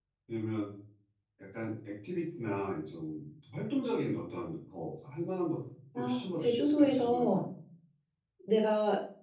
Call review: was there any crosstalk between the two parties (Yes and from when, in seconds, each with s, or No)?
Yes, from 5.9 s